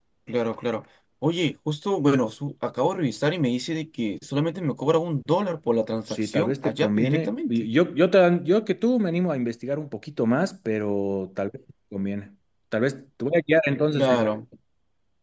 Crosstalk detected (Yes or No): Yes